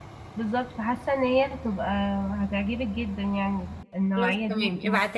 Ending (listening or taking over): taking over